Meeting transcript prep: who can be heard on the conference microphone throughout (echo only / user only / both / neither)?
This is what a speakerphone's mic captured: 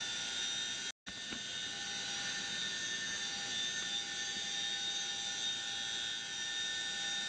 neither